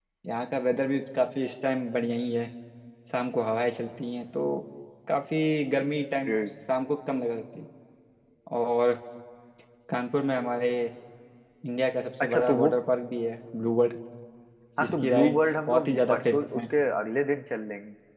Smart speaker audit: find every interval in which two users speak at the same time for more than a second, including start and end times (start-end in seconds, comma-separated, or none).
14.8-16.7